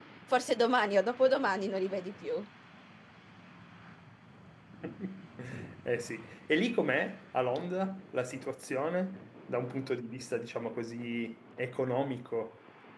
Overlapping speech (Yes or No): No